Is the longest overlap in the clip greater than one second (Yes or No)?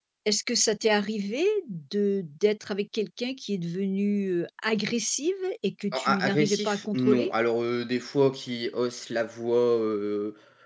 Yes